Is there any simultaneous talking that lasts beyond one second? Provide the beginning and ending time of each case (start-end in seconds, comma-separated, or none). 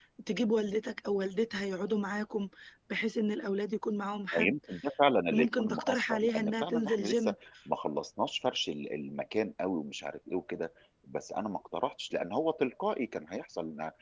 5.3-7.3